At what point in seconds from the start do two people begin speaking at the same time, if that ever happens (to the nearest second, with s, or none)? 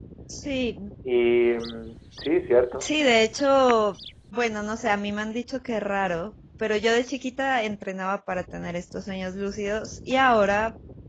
none